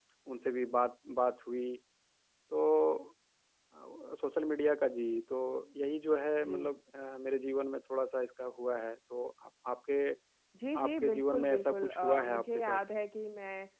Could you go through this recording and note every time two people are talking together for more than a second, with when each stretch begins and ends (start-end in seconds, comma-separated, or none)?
10.8-12.8